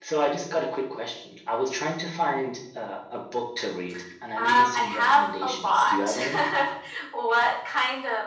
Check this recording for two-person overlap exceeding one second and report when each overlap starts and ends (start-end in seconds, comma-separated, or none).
4.4-6.1